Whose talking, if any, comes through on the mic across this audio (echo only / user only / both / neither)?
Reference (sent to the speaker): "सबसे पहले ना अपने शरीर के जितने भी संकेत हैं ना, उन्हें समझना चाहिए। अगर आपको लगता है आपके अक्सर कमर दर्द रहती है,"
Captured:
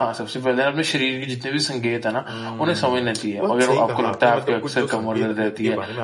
both